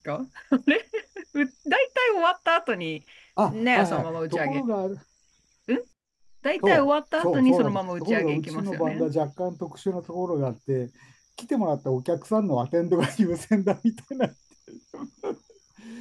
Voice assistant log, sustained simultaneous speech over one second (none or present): present